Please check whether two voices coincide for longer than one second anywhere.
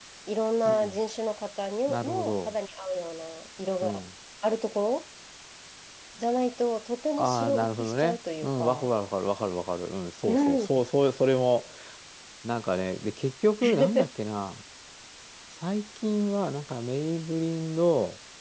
Yes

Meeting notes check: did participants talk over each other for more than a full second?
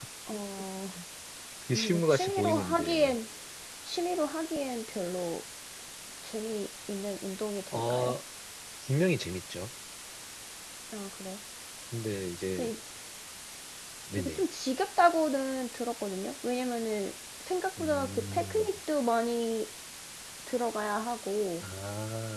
Yes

